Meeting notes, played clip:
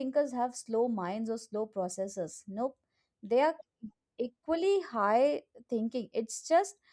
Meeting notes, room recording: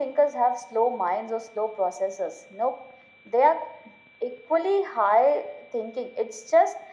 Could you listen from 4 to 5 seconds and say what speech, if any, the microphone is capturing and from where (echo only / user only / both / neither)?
echo only